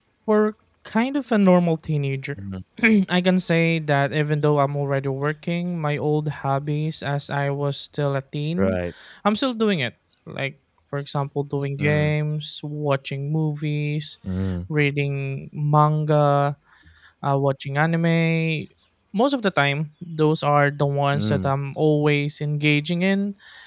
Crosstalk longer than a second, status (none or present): none